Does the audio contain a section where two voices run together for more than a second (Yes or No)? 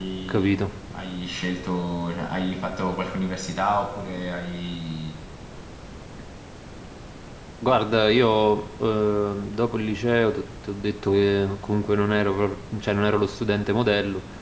No